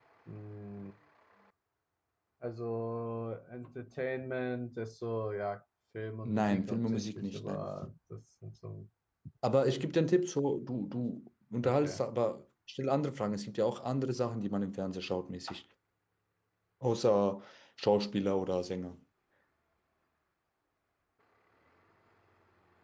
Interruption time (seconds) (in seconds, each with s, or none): 6.2 s